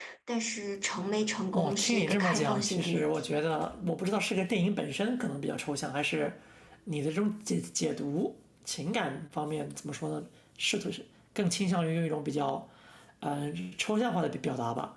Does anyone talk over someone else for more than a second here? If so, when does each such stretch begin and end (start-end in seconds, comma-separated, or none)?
1.5-3.0